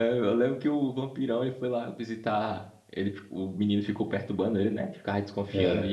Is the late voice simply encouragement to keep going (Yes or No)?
Yes